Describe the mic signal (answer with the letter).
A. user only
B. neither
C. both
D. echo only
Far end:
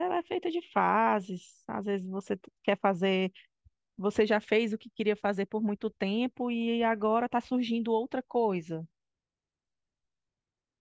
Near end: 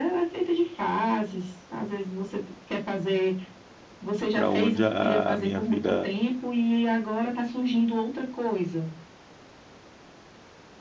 C